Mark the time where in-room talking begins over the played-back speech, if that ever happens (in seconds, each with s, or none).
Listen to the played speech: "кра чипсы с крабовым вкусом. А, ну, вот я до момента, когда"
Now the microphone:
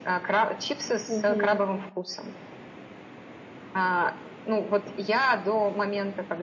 1.1 s